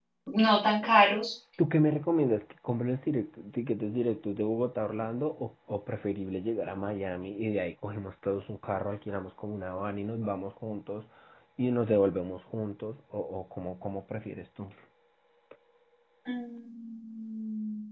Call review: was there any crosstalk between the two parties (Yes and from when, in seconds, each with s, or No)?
No